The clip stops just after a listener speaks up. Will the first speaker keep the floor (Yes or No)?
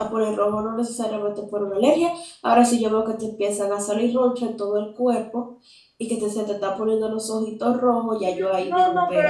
No